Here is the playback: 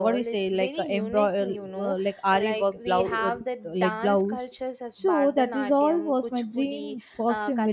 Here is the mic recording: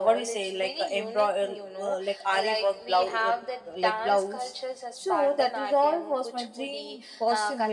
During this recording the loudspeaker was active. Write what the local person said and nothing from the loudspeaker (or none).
none